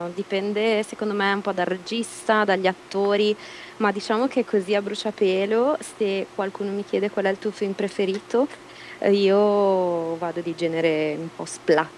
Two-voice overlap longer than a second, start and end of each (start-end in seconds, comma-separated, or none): none